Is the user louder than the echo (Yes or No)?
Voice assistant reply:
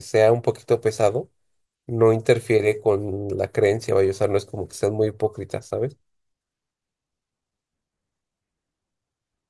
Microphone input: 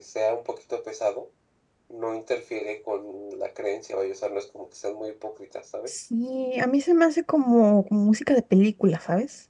Yes